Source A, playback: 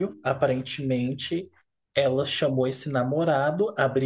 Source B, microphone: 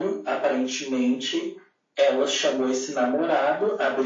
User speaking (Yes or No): No